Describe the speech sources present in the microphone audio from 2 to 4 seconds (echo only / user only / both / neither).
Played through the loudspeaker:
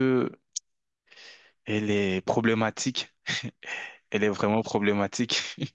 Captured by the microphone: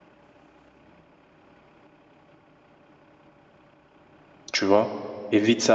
neither